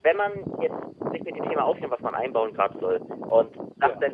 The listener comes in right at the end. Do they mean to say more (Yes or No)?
No